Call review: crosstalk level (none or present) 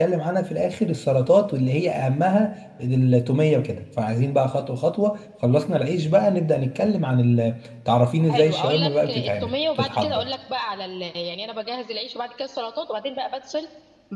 present